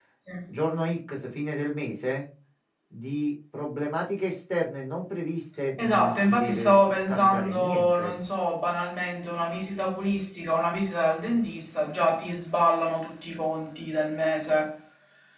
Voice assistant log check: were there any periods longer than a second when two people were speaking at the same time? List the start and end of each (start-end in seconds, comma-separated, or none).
5.8-8.2